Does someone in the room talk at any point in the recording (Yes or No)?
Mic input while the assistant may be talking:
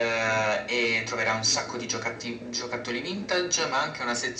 No